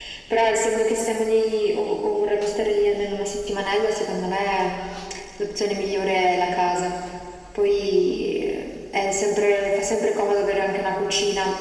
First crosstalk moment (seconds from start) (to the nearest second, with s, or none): none